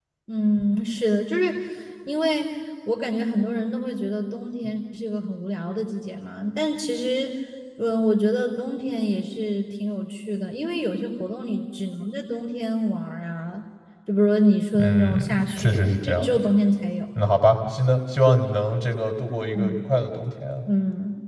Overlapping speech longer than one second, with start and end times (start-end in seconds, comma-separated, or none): 14.8-16.4